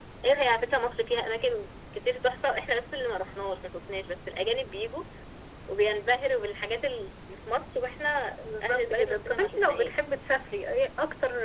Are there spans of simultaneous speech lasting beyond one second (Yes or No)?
Yes